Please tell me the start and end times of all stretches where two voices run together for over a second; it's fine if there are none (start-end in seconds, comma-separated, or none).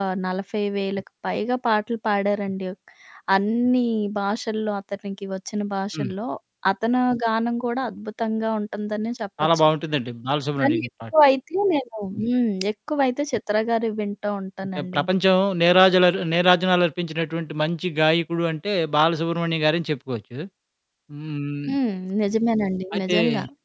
none